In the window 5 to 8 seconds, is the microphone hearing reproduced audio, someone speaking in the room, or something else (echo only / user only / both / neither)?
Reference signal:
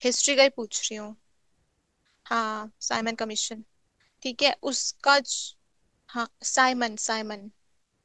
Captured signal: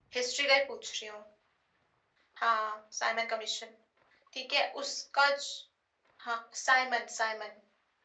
echo only